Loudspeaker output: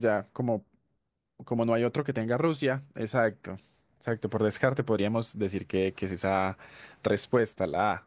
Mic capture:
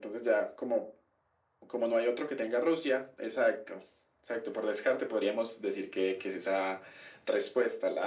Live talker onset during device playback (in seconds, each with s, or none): none